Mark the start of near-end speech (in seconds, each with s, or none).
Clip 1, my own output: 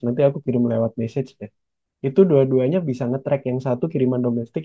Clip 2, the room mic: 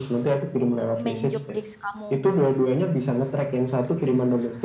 1.0 s